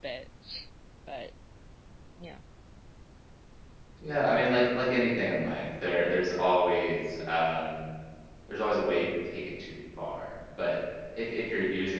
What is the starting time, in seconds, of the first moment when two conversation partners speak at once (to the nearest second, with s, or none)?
none